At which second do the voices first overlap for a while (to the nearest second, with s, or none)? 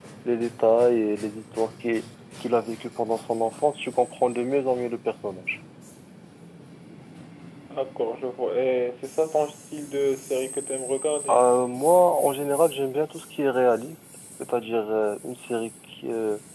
none